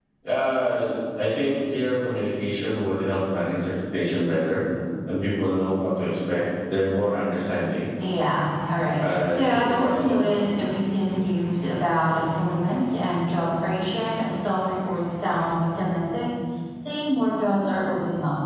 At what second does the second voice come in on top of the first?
9.0 s

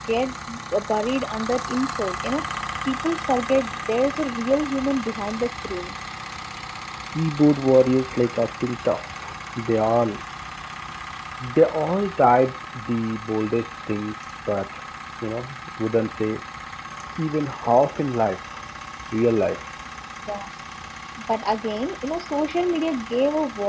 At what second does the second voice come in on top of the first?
none

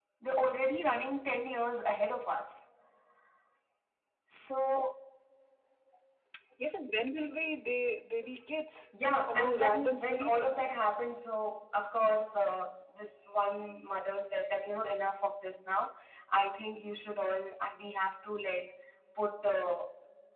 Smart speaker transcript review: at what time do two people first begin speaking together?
9.3 s

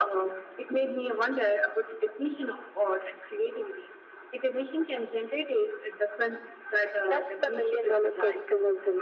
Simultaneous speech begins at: 7.0 s

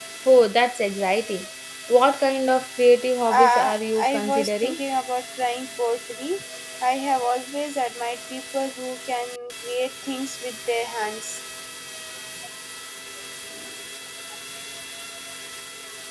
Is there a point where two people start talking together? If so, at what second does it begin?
3.3 s

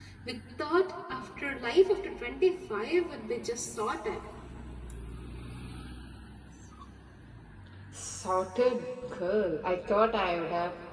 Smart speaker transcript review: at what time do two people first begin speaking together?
none

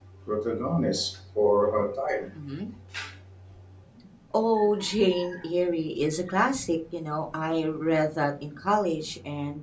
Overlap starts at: none

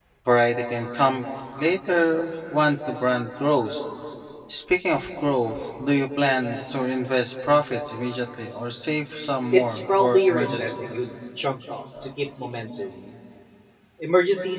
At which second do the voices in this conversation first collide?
9.5 s

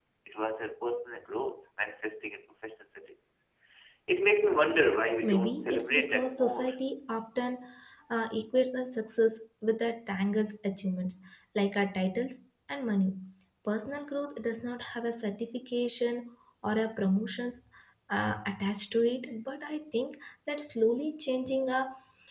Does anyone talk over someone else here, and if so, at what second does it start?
5.2 s

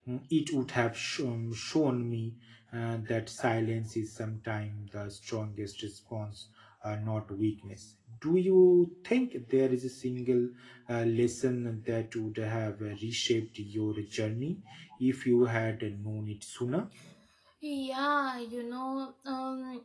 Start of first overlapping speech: none

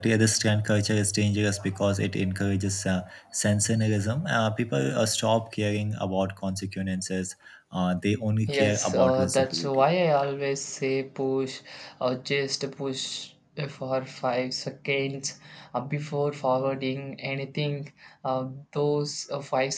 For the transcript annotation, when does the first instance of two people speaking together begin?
8.5 s

